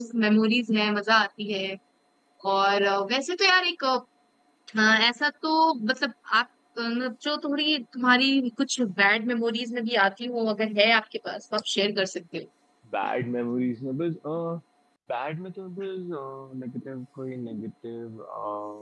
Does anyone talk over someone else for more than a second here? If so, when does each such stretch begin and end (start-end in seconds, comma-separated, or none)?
none